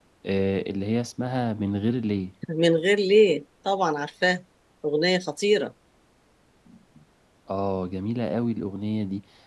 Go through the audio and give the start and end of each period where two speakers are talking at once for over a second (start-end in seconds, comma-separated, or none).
none